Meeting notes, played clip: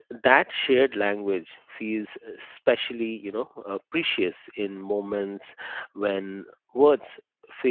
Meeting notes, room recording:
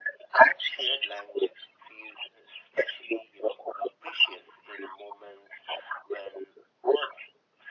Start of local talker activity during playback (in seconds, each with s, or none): none